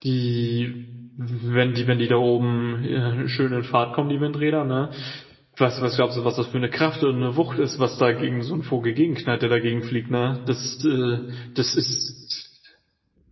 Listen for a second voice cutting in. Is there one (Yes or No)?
No